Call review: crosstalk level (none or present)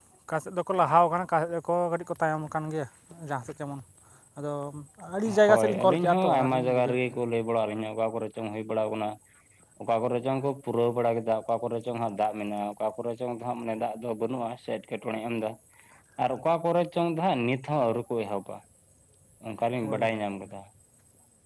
present